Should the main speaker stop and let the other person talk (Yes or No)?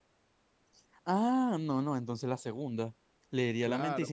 Yes